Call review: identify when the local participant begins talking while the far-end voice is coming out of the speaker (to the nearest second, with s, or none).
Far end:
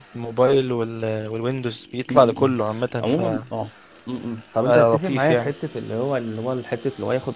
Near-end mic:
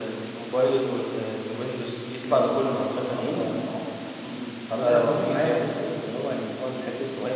none